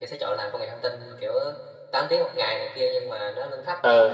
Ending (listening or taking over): listening